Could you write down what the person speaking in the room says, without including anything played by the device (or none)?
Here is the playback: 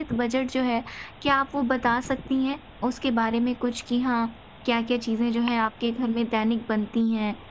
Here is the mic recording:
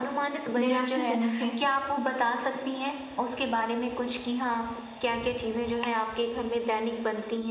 निराशाजनक है।